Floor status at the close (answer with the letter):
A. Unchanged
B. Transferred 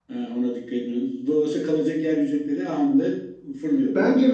B